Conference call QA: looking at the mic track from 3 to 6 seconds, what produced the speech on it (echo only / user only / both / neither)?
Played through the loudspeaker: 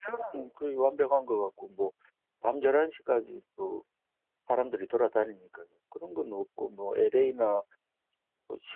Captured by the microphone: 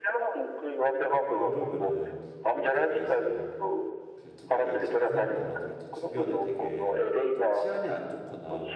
both